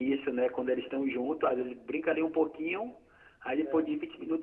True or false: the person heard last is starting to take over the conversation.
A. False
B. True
A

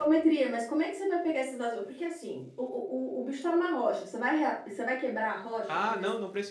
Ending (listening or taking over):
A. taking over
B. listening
A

